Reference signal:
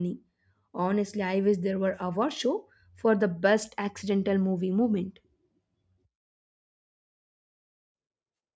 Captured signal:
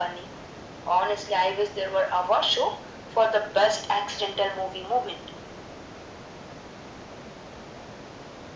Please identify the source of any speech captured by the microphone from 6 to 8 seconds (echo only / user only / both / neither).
neither